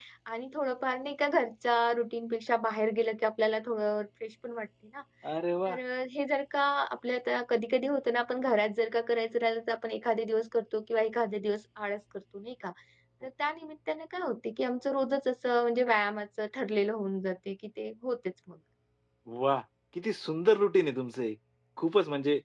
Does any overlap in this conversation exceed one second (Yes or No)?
No